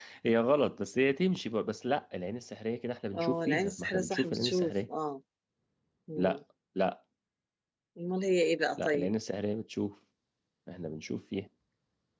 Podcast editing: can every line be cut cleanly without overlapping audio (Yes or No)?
No